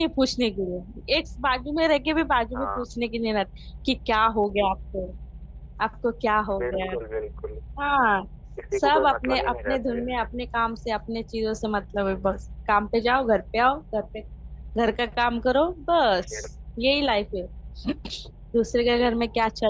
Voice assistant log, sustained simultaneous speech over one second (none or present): present